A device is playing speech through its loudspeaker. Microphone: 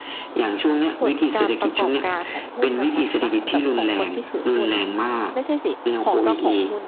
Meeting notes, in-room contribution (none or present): present